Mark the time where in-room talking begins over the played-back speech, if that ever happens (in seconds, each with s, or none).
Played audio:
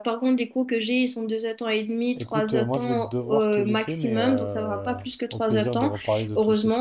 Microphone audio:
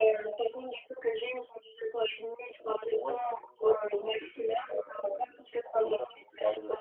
none